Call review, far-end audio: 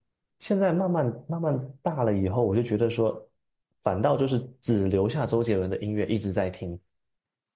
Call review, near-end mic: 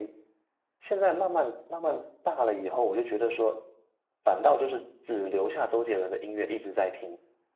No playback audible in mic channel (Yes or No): No